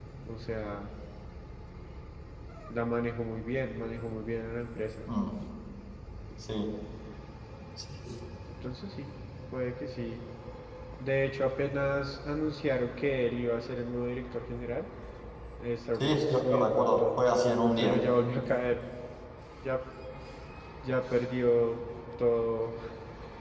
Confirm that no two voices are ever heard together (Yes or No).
No